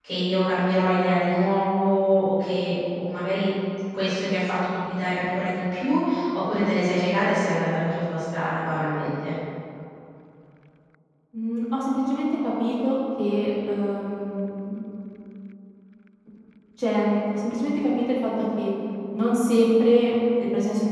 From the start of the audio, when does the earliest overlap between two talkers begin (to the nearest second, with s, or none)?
none